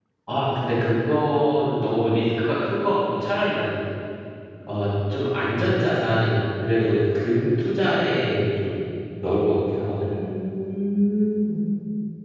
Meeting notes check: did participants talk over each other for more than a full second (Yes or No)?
No